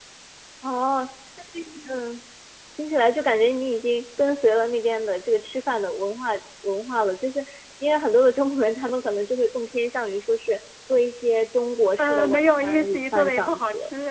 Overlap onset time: 12 s

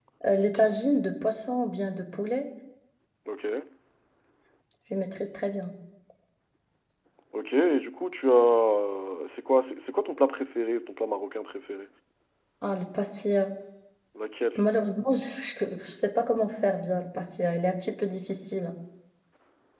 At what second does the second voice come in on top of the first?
none

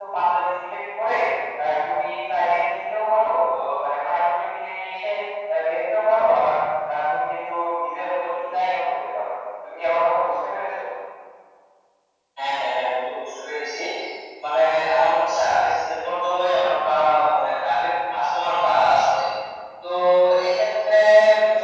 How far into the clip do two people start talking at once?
none

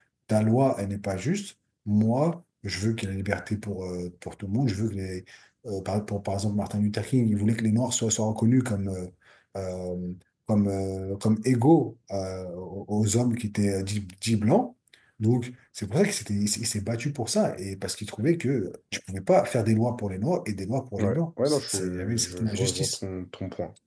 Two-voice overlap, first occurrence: 21 s

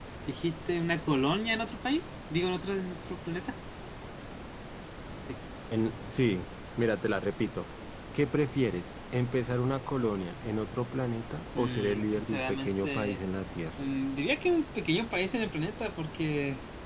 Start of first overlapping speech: 12 s

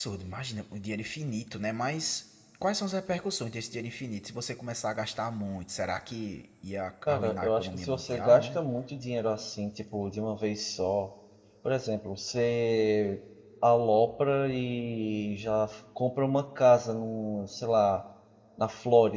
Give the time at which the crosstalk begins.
7 s

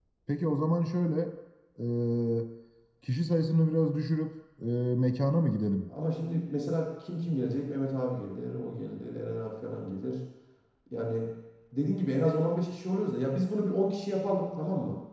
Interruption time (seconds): none

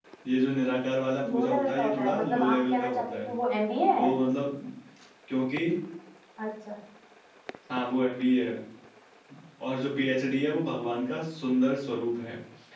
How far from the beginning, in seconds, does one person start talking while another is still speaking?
1 s

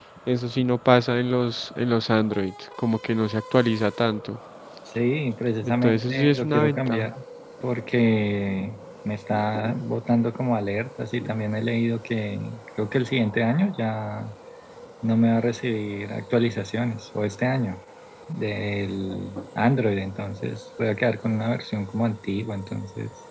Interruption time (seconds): 6 s

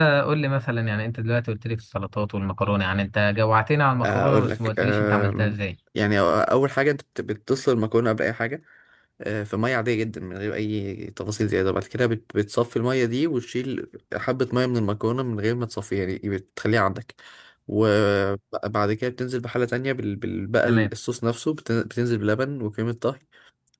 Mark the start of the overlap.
4 s

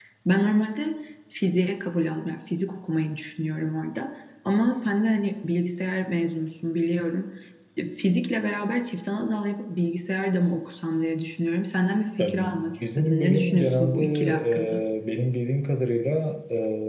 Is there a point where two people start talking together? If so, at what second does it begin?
12 s

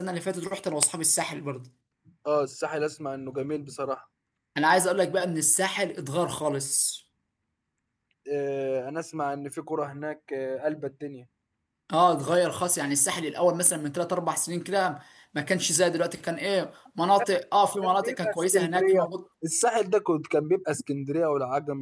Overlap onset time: 18 s

